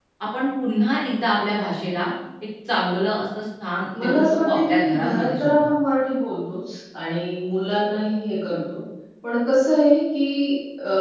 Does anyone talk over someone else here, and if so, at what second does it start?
3.9 s

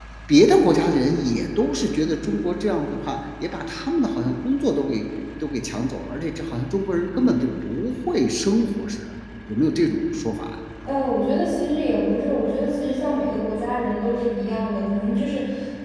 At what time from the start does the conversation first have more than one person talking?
none

